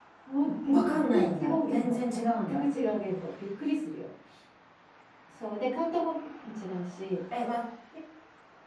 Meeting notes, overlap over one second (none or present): present